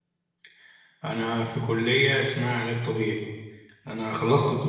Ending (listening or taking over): listening